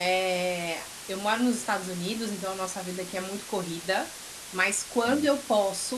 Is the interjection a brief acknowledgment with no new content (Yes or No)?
Yes